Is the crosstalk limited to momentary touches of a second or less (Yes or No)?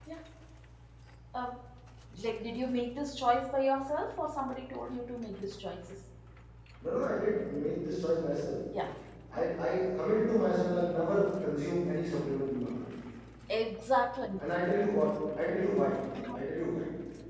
Yes